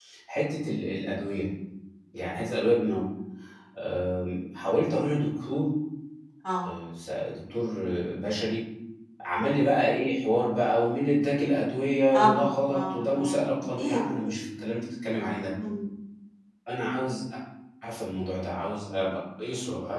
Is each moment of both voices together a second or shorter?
No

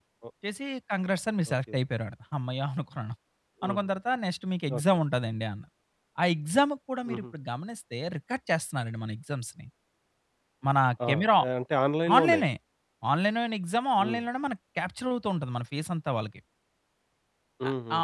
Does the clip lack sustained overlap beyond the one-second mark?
Yes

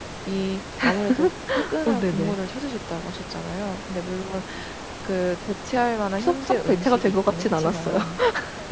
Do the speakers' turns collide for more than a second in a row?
Yes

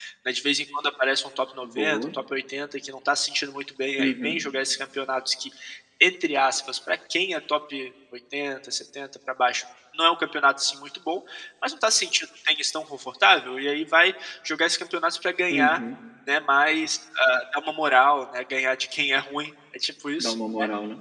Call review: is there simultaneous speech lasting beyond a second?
No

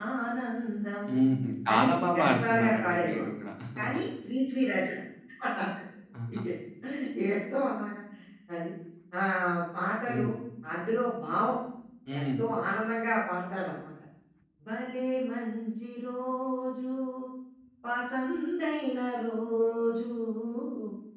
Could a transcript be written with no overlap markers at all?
No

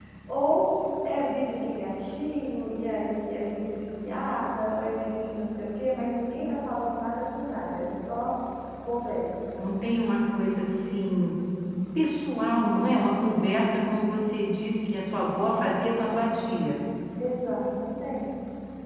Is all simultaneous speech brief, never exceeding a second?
Yes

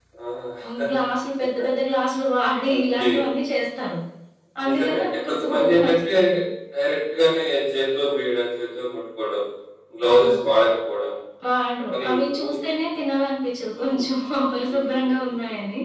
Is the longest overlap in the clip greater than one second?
Yes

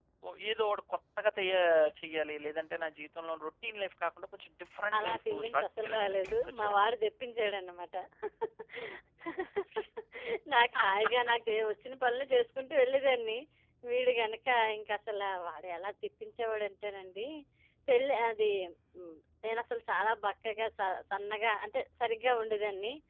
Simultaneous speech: Yes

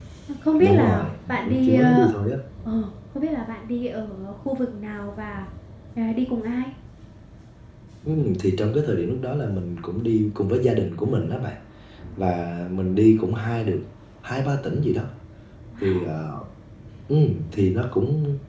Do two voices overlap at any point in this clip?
Yes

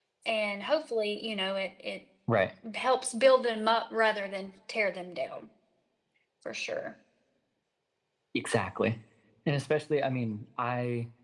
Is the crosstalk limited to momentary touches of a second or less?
Yes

